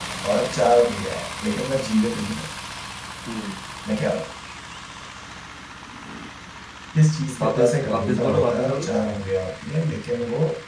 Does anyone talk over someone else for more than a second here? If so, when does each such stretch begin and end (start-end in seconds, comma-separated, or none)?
7.4-8.9